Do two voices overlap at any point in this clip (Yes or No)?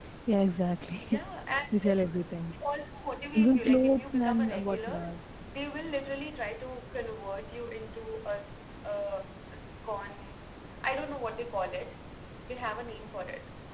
Yes